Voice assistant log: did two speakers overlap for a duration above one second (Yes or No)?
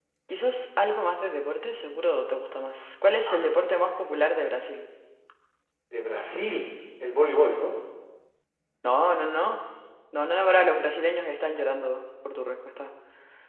No